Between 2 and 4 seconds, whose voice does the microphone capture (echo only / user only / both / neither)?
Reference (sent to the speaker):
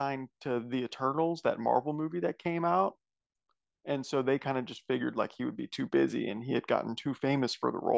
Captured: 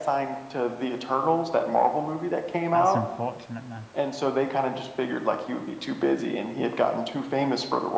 both